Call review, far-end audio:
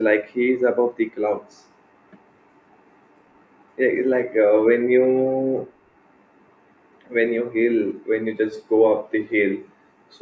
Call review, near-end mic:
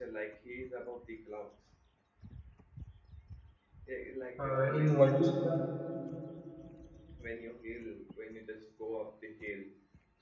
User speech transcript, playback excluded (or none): uh, in Vadista,